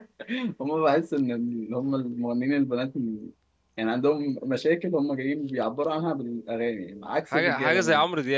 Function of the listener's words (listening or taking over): taking over